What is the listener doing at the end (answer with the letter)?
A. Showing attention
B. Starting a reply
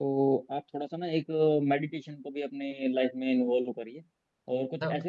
A